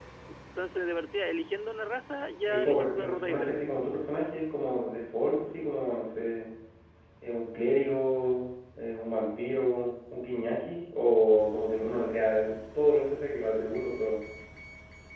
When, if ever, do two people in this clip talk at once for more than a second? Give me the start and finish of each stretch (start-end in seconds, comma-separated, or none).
2.5-3.7